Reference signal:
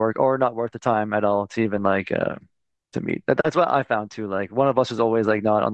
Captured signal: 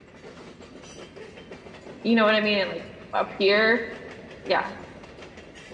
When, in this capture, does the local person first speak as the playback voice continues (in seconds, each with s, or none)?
2.0 s